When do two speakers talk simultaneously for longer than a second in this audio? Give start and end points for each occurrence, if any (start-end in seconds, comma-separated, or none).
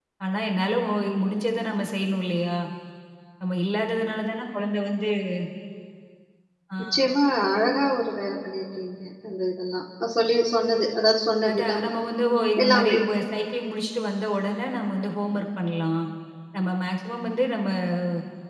none